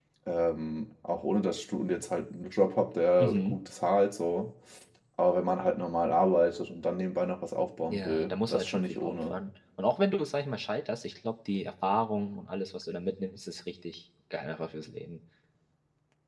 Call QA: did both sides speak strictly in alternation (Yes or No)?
No